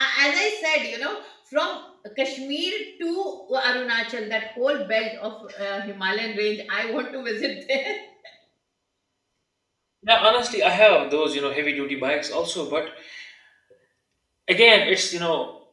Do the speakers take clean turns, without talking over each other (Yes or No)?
Yes